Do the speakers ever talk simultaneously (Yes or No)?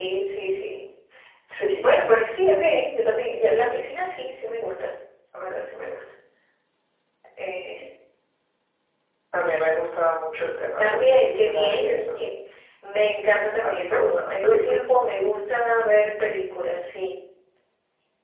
Yes